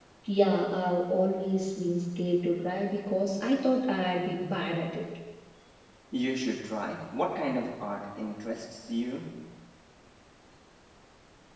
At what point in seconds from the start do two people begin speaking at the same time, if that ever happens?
none

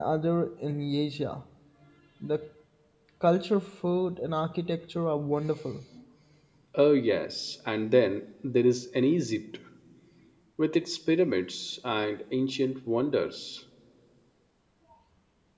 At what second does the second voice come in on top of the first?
none

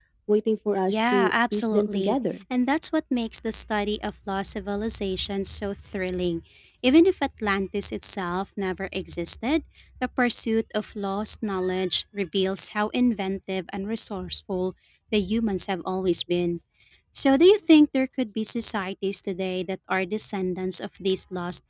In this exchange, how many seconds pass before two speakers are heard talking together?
0.9 s

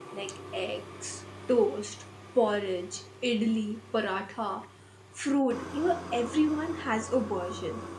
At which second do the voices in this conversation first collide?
none

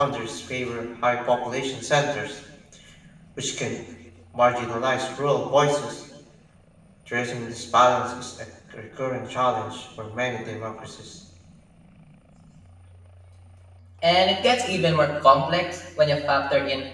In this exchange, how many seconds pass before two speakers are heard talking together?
none

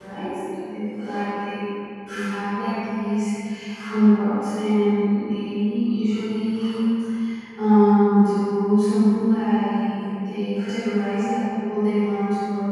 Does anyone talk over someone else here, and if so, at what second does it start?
none

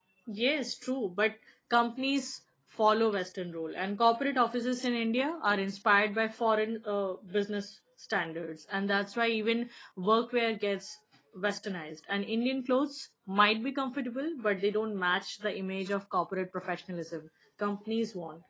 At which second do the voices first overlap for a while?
none

